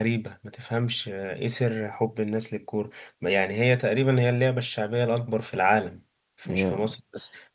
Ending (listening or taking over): listening